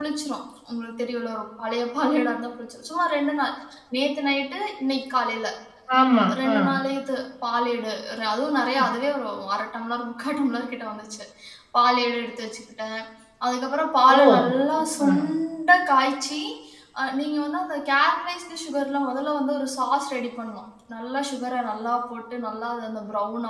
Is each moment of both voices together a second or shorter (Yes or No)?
Yes